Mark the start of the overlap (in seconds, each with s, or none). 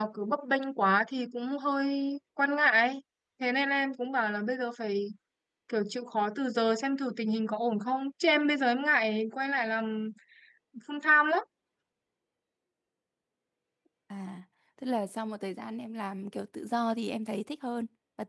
none